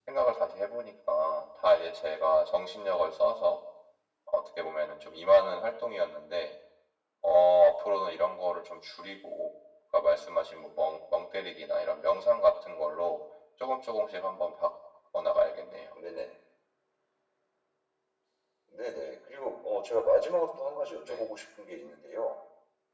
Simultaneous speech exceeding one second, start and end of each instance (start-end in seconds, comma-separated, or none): none